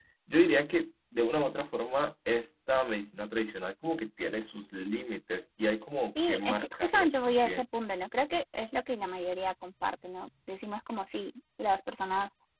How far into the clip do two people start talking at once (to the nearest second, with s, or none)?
6 s